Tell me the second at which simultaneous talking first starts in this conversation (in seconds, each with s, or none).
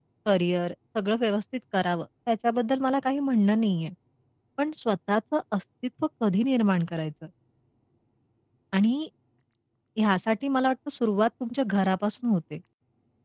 none